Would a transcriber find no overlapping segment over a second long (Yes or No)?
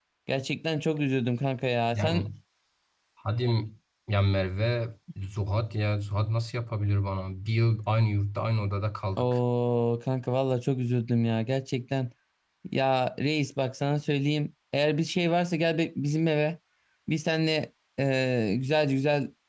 Yes